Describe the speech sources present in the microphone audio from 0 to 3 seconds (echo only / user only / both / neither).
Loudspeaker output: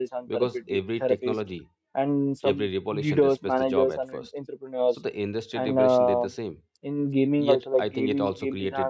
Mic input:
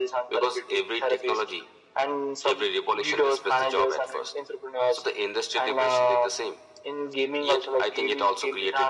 echo only